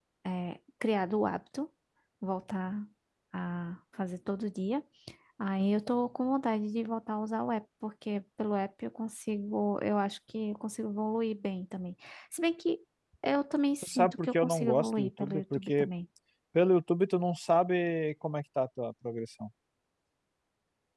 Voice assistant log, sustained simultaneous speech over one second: present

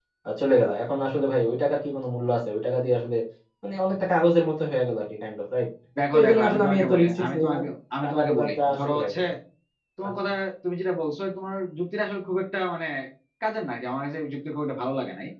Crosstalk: present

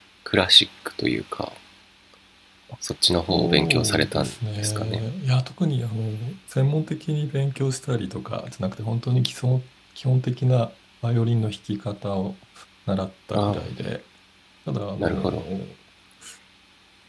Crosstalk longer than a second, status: present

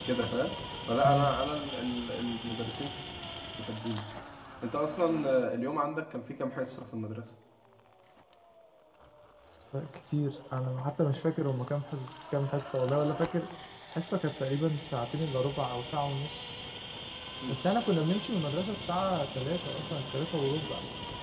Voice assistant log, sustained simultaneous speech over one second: none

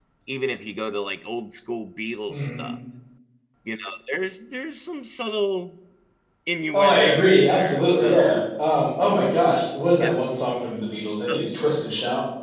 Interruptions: present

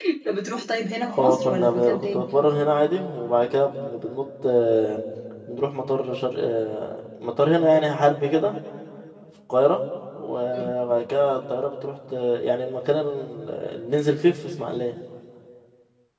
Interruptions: present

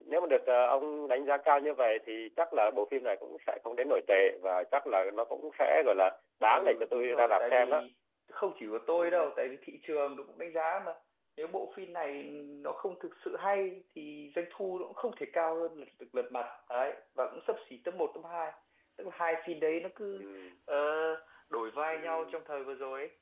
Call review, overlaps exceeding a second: present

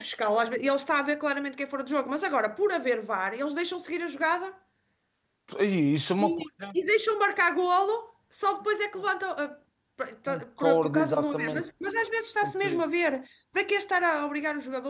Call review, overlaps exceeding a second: present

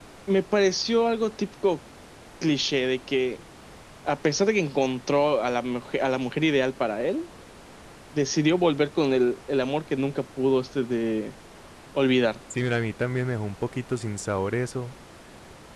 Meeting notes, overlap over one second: none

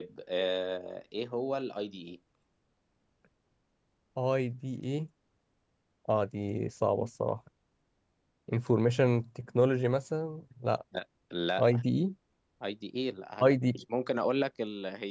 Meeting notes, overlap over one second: none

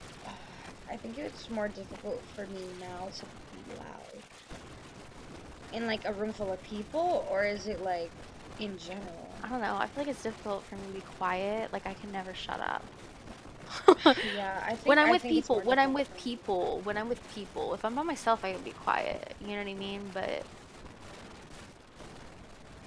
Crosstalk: present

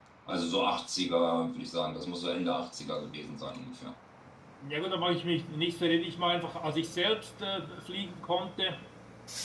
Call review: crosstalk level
none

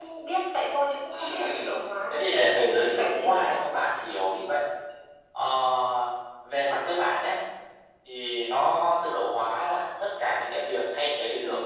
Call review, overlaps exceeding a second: present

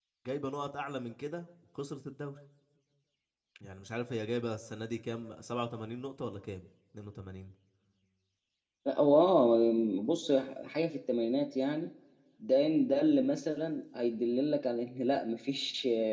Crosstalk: none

